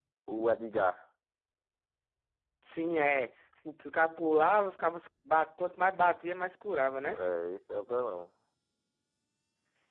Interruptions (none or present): none